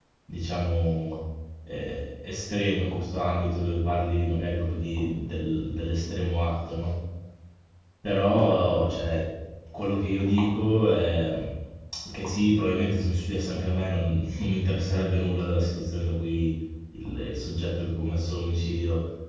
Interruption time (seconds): none

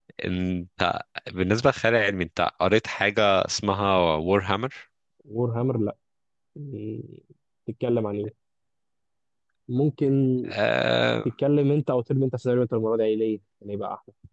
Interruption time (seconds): none

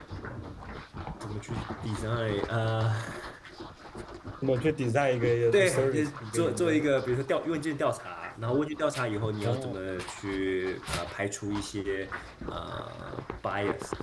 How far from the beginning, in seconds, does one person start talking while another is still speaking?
5.5 s

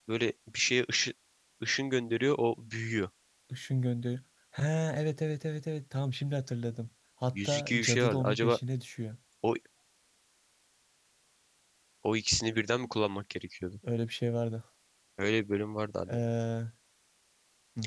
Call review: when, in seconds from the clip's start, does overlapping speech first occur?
7.3 s

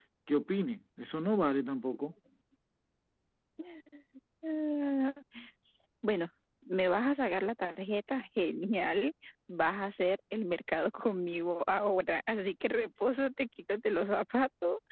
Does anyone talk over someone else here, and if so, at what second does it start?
none

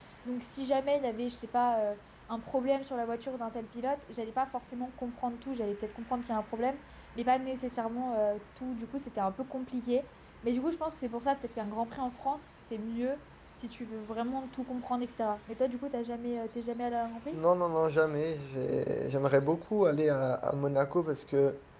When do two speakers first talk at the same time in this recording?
none

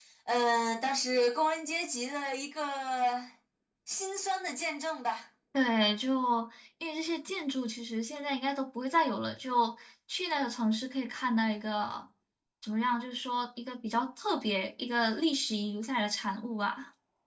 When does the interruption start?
none

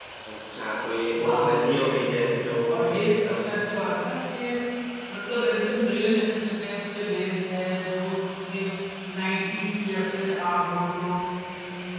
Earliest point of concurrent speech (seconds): 1.2 s

